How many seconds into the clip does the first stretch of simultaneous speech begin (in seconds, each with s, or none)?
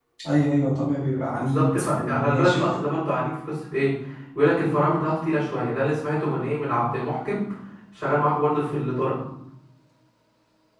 1.3 s